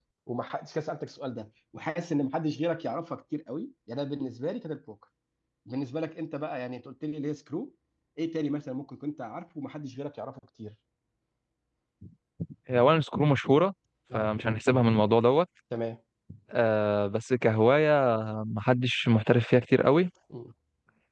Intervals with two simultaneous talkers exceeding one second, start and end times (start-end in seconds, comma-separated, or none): none